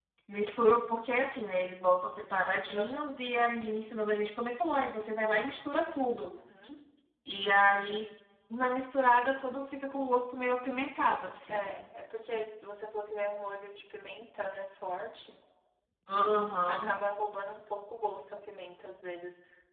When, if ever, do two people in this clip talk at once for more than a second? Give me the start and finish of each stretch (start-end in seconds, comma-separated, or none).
none